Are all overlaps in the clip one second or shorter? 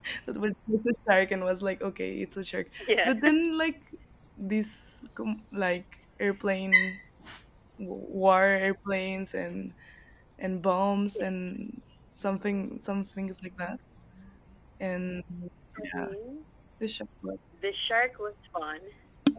Yes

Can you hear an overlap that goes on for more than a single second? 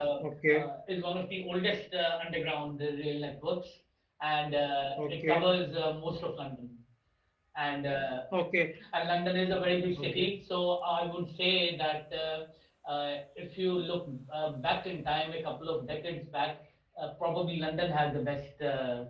No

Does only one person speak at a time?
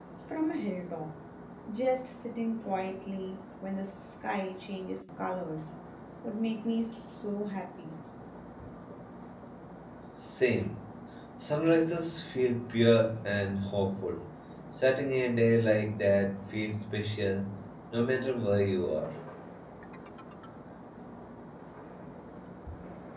Yes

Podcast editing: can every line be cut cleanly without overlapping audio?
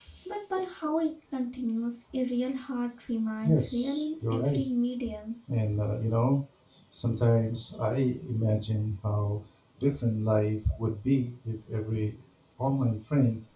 No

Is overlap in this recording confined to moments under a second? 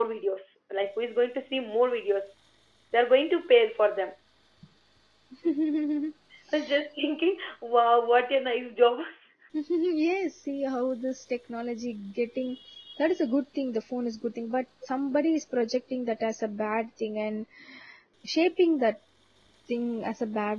Yes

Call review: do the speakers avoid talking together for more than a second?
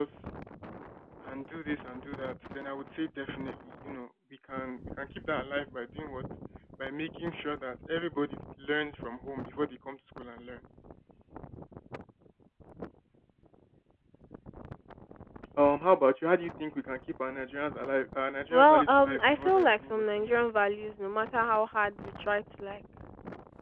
No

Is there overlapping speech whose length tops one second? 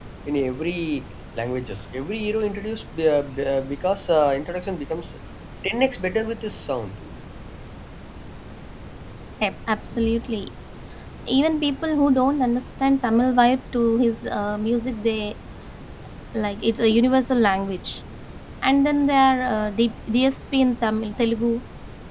No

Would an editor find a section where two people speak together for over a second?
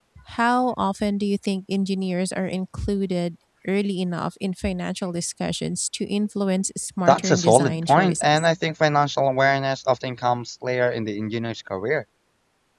Yes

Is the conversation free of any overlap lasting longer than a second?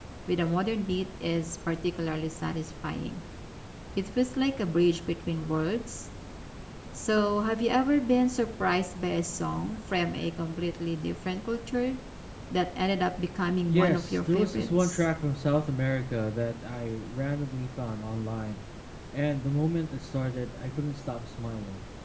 No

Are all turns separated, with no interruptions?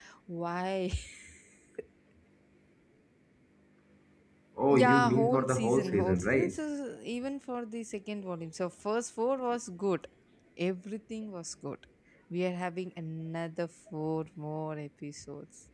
No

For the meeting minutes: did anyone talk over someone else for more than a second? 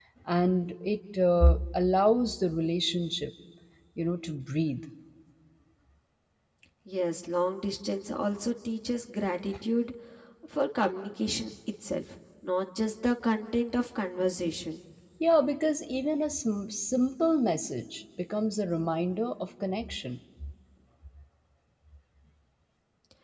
No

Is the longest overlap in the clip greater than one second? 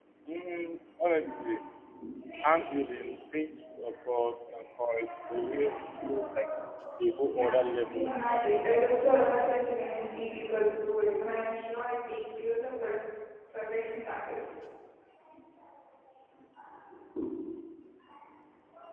Yes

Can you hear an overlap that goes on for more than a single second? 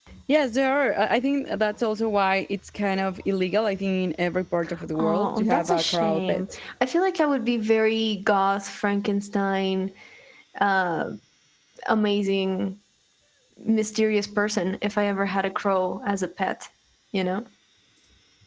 Yes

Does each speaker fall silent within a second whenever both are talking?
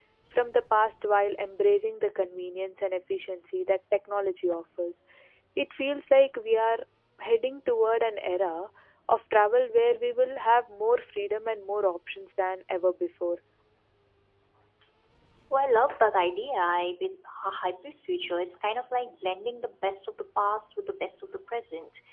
Yes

